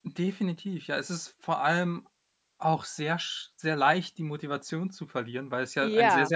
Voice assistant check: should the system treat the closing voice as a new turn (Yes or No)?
No